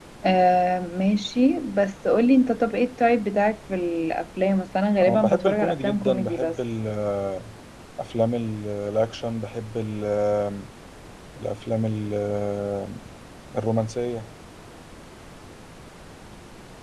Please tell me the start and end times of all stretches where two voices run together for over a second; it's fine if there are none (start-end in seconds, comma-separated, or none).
5.0-6.6